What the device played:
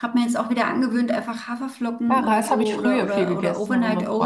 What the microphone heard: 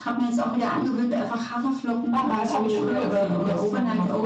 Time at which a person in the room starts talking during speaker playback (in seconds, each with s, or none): none